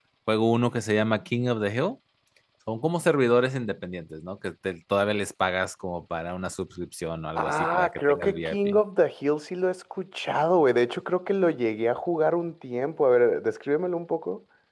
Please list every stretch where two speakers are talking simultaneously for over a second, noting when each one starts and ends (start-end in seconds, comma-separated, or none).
7.4-8.6